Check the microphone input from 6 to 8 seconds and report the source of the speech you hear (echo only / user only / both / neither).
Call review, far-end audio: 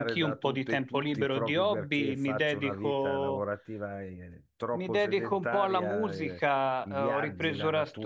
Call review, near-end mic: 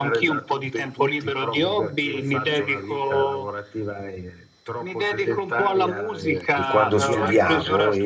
both